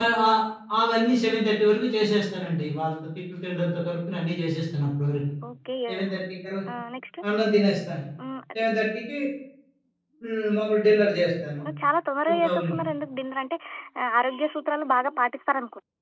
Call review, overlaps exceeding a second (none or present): none